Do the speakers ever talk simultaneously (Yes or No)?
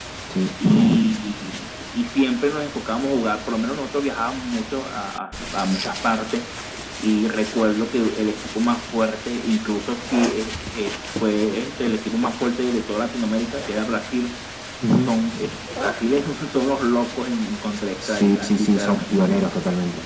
Yes